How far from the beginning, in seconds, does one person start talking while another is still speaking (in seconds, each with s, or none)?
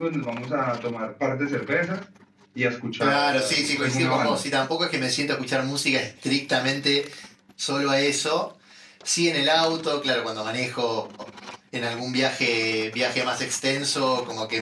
3.0 s